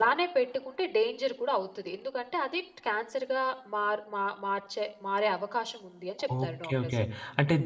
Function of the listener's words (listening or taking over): taking over